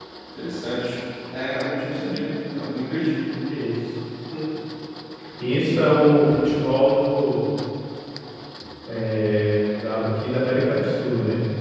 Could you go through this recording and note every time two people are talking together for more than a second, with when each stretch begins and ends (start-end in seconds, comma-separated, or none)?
none